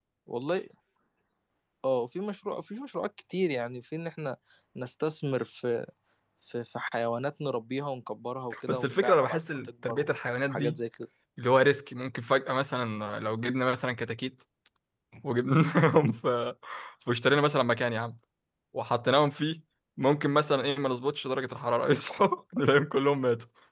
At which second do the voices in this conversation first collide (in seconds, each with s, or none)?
8.5 s